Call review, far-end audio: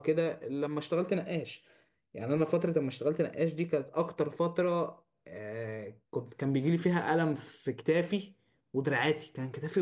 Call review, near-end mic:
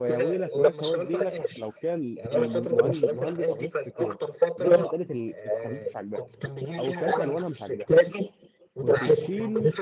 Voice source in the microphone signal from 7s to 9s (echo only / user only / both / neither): both